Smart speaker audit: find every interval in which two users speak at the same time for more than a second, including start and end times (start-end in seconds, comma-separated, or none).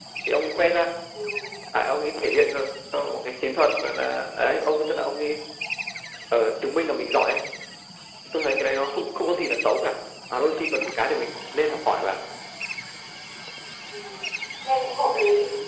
none